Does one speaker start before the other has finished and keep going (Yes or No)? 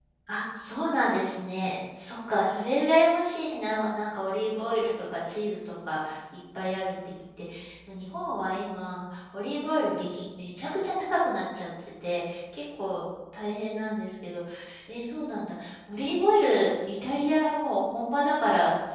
No